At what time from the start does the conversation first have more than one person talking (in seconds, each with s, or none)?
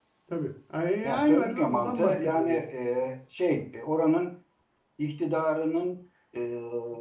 1.0 s